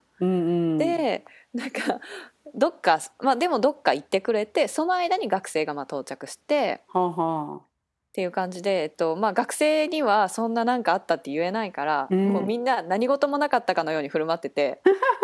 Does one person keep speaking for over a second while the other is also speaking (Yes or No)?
No